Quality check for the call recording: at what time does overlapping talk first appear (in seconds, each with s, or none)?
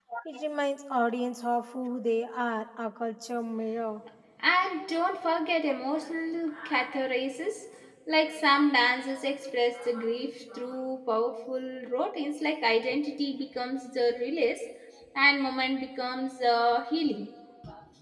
none